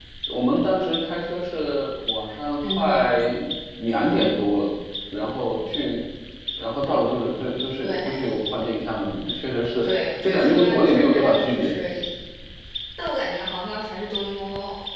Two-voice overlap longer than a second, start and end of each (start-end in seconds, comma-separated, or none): 9.8-11.7